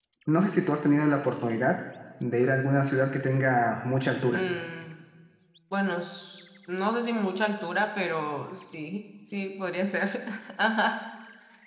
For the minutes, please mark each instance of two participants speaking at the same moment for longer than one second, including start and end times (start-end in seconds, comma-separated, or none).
none